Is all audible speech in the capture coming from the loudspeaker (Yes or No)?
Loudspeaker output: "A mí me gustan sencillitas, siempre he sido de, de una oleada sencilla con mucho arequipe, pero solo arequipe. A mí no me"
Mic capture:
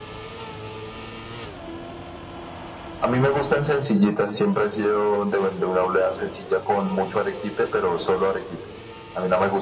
Yes